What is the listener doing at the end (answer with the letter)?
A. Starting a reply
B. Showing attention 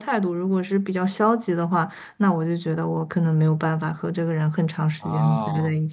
B